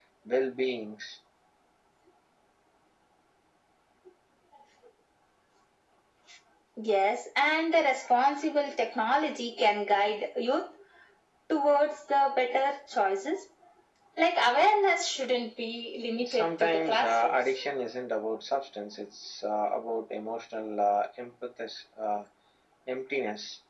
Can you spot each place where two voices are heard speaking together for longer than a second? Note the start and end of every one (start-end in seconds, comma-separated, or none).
16.2-17.4